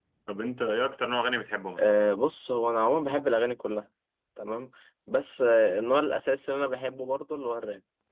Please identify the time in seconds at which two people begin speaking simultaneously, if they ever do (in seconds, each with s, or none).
none